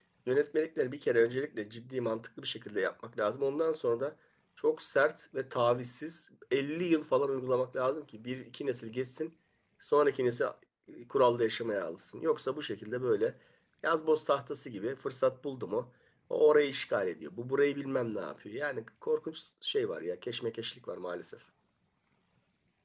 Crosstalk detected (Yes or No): No